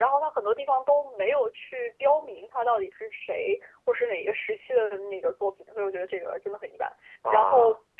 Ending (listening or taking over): listening